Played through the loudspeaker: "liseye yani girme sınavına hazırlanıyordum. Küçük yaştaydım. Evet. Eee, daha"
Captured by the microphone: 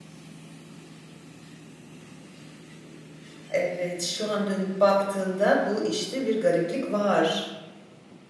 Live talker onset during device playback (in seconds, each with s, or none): 3.5 s